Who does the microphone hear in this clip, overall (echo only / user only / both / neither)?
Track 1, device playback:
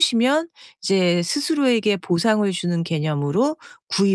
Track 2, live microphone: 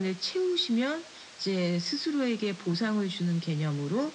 echo only